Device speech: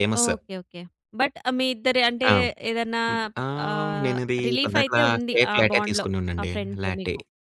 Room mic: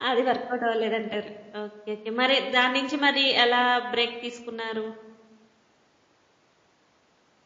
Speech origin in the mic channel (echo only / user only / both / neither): user only